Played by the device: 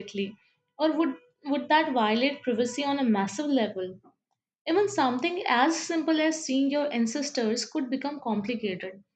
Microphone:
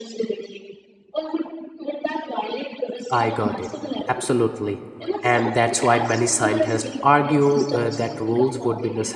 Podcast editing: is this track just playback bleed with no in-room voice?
No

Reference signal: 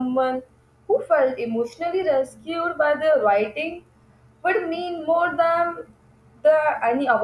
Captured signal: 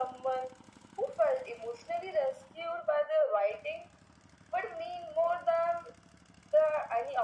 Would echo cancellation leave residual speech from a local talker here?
No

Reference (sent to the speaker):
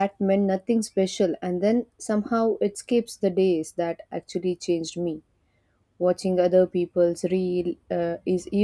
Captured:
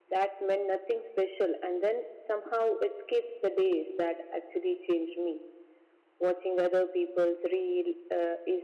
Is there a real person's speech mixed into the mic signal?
No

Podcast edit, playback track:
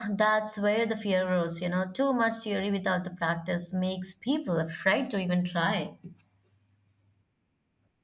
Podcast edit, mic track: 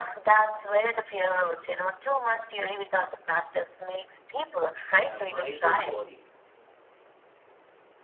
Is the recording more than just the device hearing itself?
Yes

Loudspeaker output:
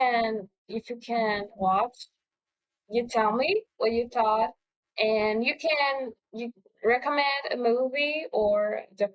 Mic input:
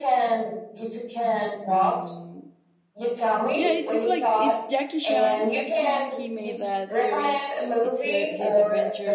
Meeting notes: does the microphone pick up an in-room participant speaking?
Yes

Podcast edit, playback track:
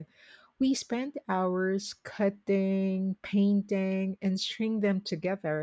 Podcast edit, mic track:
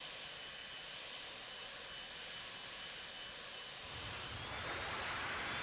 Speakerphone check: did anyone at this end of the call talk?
No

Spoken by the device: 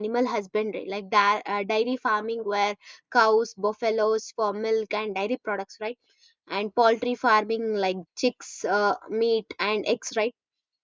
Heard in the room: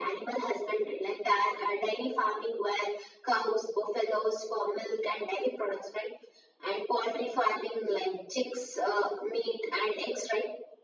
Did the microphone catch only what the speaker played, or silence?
Yes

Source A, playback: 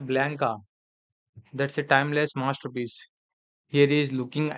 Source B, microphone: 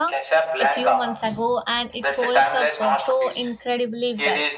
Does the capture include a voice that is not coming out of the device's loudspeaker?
Yes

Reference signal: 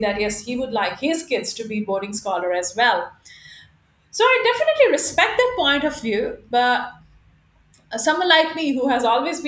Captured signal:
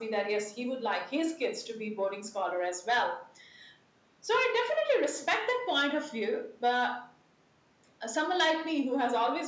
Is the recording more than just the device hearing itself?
No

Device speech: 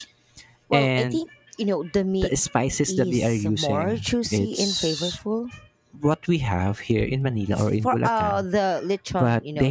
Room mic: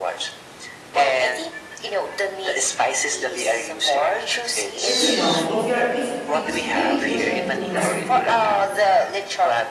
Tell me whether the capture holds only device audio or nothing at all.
No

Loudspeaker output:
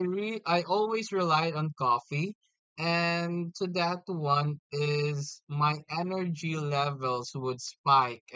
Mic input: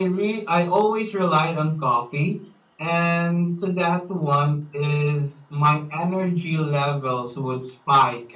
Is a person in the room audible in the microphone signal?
No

